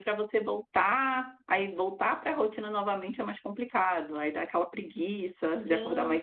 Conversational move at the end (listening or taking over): taking over